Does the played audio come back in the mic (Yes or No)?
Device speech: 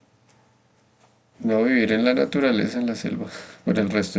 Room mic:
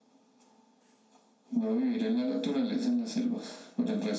Yes